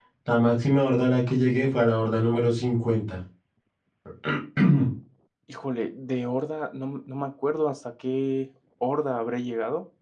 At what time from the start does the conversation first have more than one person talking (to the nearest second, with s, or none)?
none